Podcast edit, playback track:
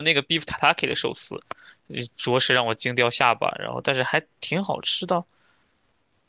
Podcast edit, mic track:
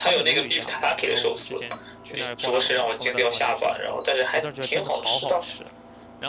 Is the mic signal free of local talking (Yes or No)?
No